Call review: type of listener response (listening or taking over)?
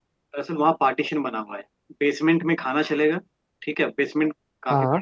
listening